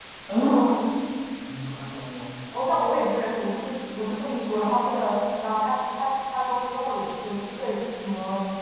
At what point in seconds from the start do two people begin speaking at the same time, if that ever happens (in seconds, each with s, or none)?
none